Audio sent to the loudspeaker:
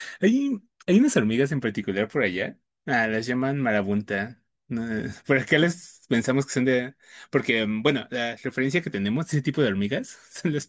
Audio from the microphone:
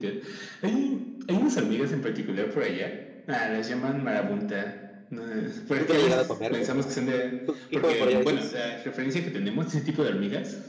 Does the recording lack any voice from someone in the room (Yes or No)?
No